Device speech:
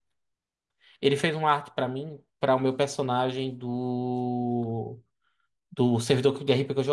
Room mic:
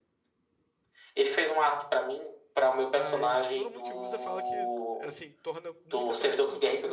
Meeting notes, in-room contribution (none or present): present